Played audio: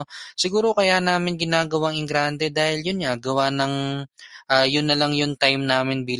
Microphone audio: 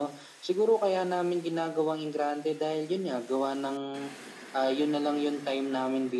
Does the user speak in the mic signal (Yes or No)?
No